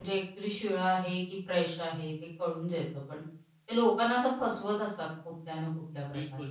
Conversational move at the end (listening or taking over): taking over